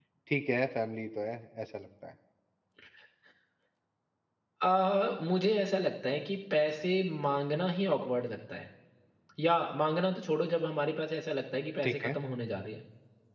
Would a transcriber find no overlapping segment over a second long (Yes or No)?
Yes